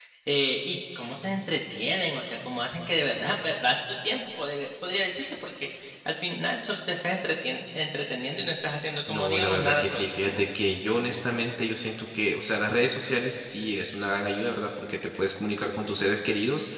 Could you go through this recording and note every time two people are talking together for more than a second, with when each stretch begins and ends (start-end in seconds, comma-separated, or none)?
9.1-10.4